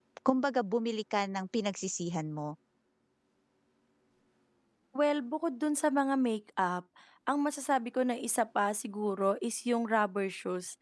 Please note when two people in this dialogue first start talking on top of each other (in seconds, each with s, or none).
none